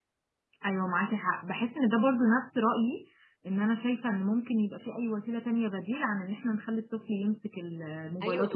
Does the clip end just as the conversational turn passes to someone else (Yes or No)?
Yes